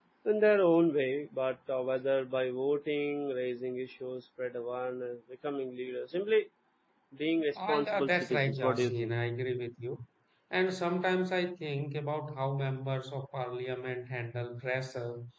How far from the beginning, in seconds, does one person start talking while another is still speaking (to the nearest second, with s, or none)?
8 s